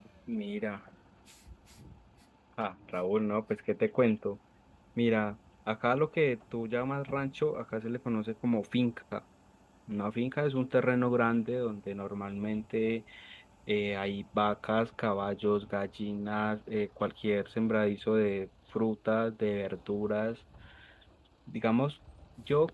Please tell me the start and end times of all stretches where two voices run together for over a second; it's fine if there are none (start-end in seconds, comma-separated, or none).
none